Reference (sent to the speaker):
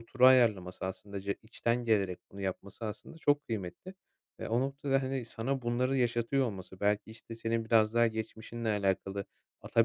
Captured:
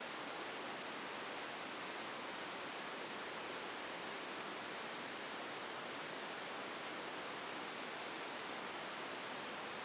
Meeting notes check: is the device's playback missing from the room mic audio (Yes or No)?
Yes